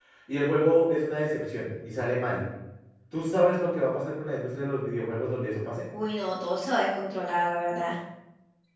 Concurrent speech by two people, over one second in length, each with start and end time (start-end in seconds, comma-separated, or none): none